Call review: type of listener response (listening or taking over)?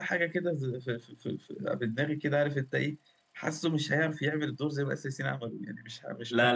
taking over